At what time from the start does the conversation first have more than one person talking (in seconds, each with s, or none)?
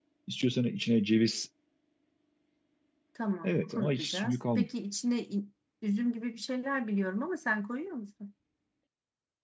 3.4 s